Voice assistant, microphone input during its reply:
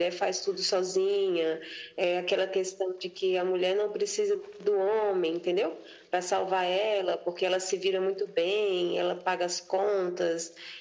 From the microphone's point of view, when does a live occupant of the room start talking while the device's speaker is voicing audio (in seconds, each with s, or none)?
none